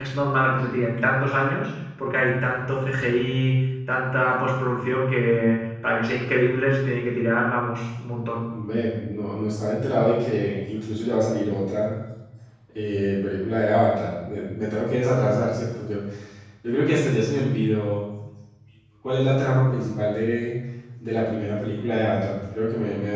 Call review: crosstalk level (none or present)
none